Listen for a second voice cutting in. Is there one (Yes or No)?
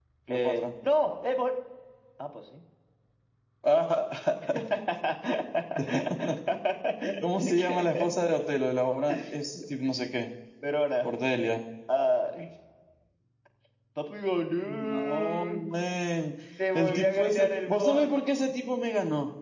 Yes